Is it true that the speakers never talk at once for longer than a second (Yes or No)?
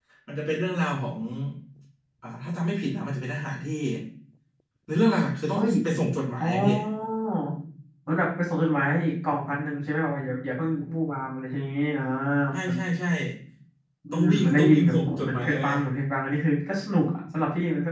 No